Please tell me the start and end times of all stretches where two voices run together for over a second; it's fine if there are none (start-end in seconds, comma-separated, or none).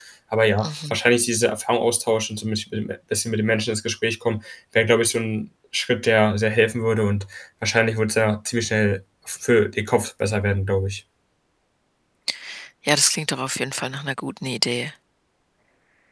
none